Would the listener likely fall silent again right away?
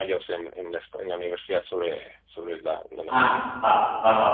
No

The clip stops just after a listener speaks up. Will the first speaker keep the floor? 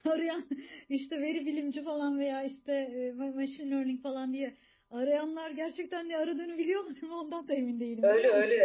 No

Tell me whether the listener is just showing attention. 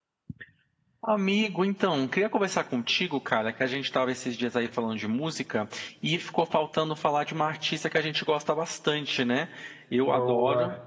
Yes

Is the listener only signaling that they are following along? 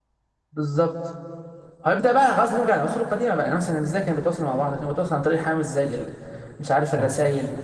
Yes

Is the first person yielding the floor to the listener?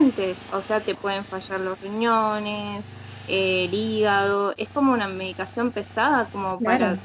Yes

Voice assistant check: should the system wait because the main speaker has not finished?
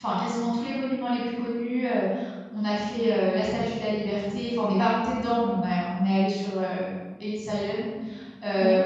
Yes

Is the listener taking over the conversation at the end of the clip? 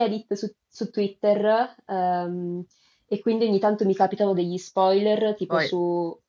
No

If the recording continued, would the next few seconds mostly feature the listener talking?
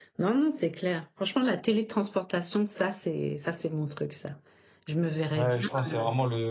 Yes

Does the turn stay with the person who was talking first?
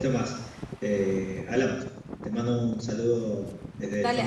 No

